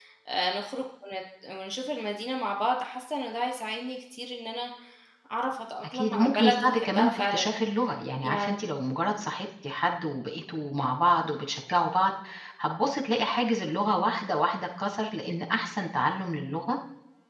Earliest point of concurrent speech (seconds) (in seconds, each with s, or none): 5.8 s